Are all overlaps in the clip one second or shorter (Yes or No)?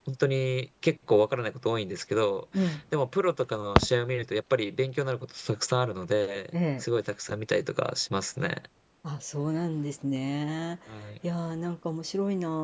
Yes